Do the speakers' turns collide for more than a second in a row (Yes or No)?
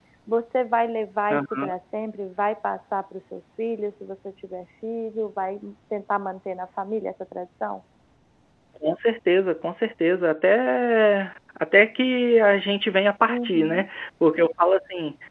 No